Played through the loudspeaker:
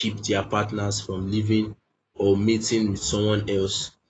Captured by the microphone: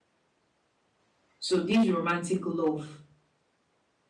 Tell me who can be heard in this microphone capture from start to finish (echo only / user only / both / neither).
user only